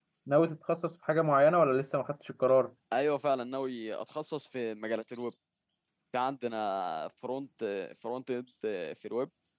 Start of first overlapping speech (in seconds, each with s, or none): none